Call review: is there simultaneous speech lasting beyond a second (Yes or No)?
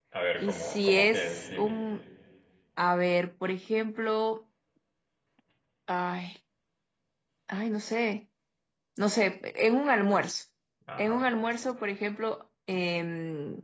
Yes